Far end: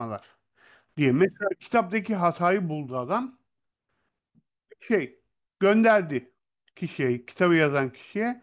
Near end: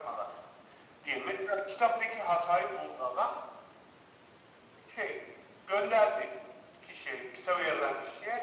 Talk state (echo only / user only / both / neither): echo only